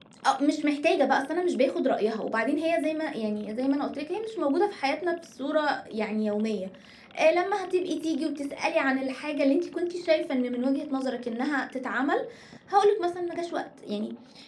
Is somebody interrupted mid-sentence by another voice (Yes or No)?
No